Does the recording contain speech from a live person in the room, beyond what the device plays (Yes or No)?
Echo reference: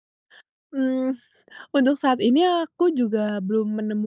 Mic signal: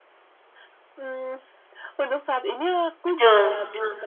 Yes